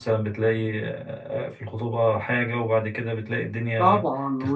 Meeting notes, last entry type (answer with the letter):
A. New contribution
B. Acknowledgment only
A